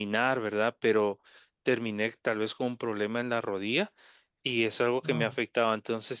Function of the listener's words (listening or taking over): listening